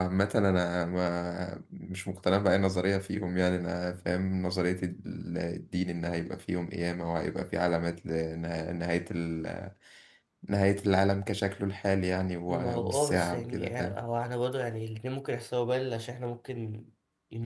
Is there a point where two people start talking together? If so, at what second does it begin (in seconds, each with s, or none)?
12.5 s